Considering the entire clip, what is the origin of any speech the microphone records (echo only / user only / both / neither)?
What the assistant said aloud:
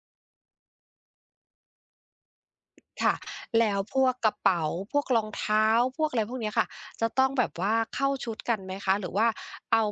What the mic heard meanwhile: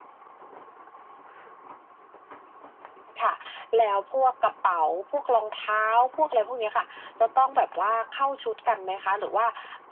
echo only